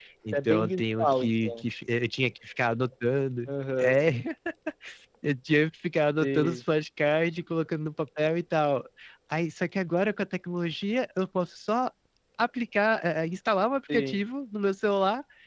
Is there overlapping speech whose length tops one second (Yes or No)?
Yes